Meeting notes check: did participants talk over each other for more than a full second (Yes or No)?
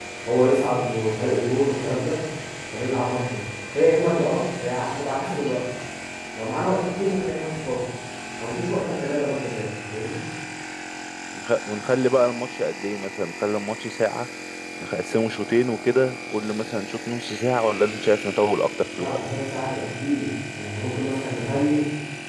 No